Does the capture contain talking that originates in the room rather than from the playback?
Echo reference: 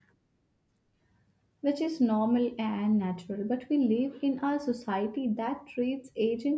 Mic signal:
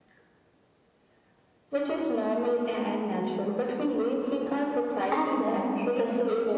Yes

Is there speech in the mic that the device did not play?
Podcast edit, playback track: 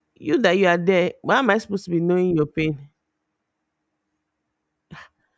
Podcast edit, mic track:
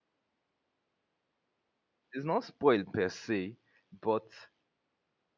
Yes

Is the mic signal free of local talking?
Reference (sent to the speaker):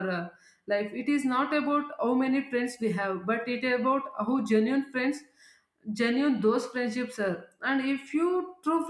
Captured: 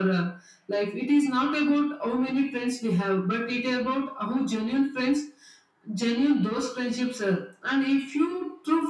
Yes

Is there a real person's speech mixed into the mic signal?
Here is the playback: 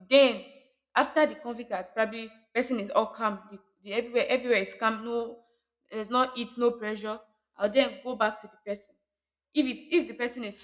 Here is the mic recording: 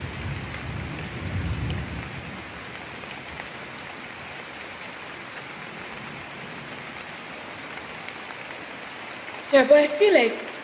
Yes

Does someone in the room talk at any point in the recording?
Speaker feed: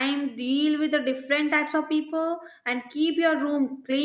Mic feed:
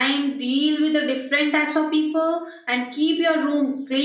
No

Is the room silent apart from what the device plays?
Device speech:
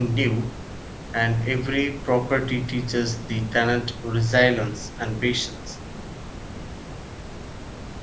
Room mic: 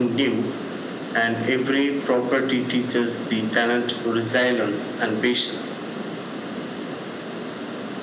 Yes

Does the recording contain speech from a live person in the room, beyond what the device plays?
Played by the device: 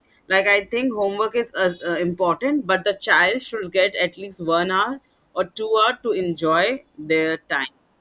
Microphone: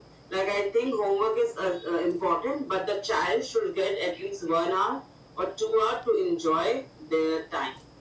No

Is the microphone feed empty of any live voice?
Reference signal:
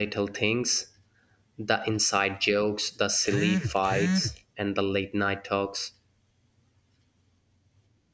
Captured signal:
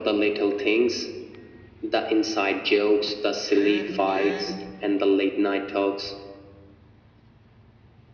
Yes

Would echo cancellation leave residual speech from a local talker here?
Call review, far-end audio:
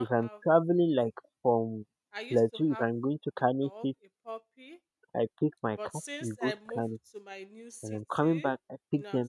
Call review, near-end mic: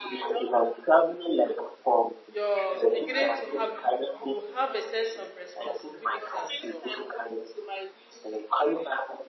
Yes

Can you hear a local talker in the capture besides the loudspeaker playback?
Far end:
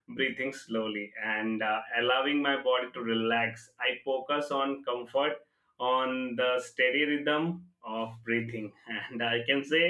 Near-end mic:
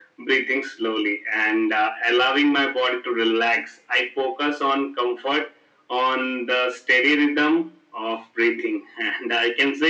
No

